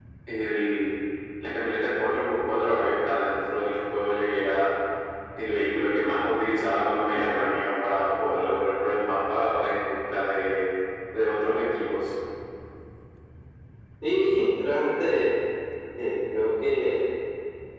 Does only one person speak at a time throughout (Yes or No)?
Yes